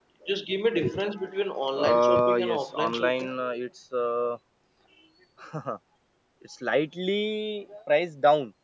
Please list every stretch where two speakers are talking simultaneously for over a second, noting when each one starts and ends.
1.7-3.3

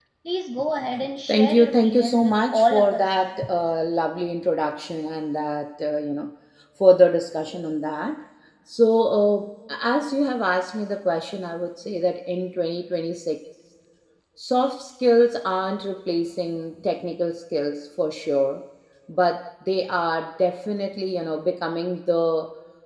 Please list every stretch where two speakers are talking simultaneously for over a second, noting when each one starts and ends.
1.3-3.1

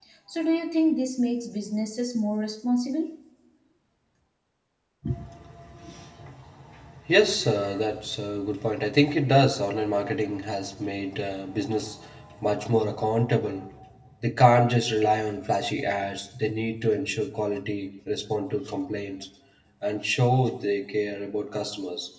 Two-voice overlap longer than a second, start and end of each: none

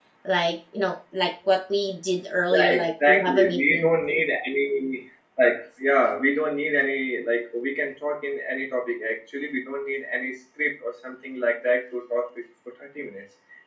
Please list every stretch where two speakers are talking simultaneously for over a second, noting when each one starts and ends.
2.5-4.0

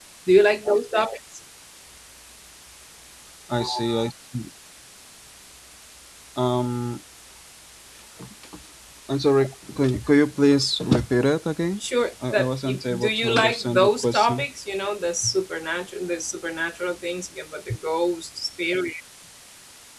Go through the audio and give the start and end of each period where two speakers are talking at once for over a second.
12.3-14.4

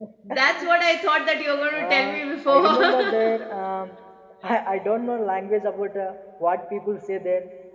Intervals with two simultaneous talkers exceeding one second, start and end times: 1.7-3.4

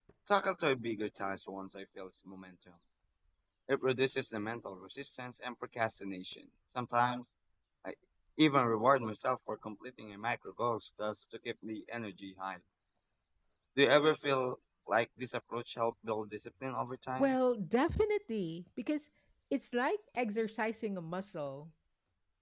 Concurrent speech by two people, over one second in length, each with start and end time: none

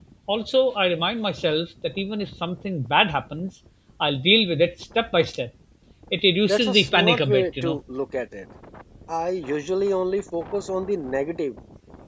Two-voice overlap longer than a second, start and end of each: 6.5-7.8

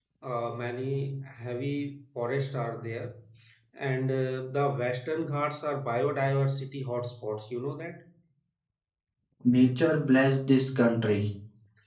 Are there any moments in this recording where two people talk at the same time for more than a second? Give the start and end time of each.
none

